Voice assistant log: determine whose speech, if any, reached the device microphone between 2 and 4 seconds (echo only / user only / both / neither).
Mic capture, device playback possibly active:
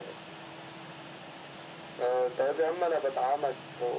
echo only